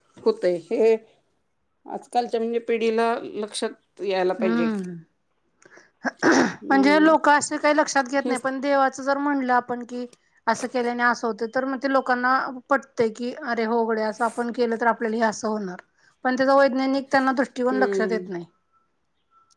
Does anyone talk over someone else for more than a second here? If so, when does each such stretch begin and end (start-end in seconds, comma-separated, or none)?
none